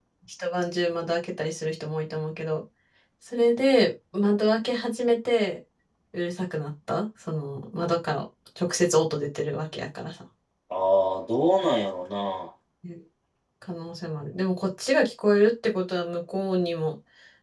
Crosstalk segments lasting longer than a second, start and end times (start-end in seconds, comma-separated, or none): none